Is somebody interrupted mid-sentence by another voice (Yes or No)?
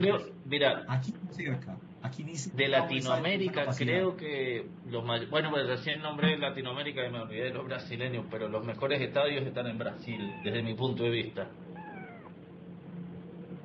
Yes